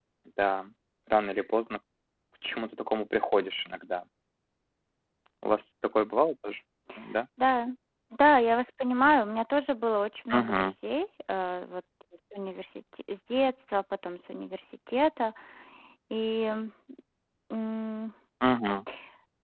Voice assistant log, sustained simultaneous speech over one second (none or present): none